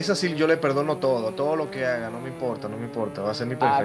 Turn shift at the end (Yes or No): No